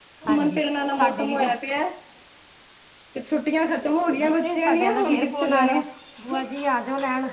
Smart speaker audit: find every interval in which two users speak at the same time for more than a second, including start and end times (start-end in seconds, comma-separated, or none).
4.2-5.8